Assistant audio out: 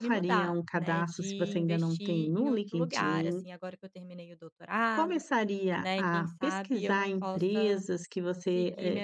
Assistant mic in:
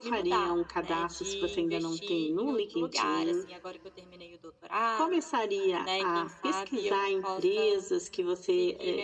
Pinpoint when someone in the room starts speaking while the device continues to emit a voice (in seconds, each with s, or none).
none